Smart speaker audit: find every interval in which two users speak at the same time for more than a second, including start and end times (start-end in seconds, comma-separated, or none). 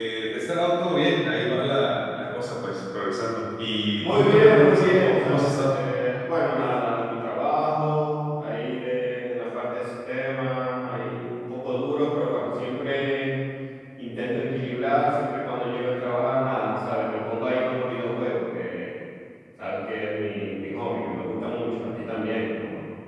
4.0-5.8